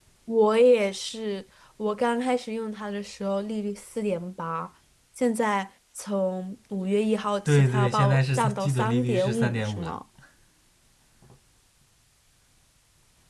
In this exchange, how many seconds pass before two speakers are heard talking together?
7 s

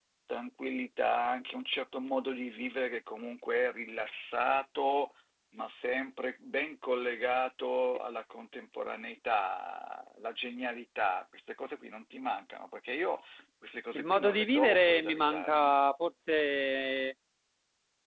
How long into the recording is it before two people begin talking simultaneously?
14 s

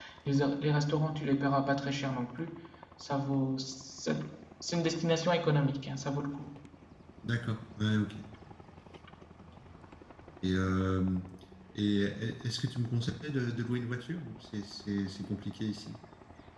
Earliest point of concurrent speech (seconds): none

